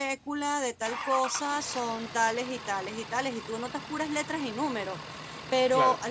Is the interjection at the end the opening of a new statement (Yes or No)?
No